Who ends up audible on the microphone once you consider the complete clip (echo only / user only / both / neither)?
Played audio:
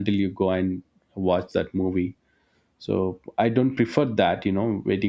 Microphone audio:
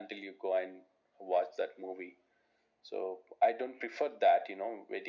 echo only